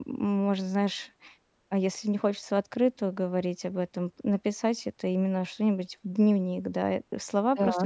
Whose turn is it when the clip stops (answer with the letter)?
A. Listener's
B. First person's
B